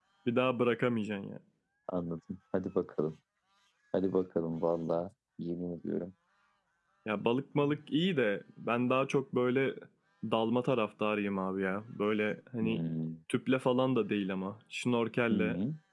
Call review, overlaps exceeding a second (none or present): none